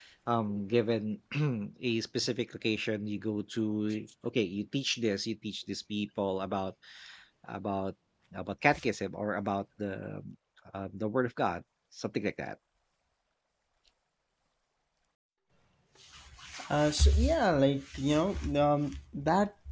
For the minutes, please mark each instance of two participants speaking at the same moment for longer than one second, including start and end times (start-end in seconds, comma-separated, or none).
none